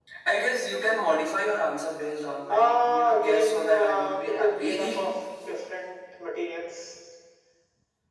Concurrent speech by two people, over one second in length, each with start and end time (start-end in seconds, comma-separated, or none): 2.5-5.1